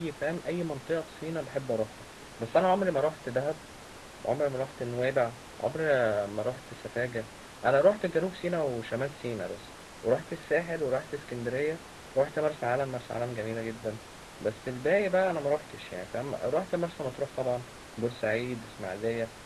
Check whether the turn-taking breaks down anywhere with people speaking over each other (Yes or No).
No